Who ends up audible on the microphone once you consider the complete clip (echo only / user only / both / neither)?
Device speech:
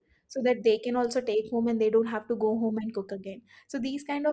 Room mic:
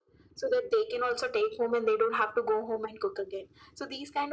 echo only